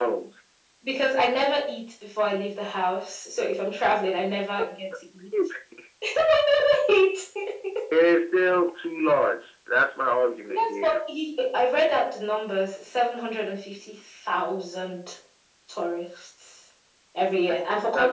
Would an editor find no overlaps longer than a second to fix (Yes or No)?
Yes